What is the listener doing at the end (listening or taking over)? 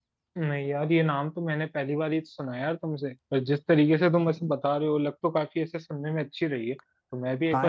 taking over